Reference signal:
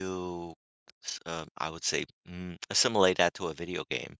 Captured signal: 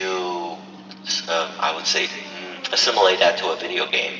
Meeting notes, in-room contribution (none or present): none